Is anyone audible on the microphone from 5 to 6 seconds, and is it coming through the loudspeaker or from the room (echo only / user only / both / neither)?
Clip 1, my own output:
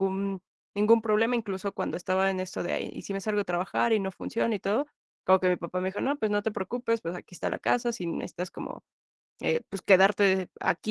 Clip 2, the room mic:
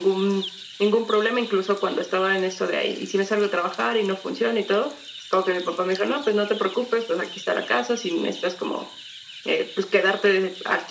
echo only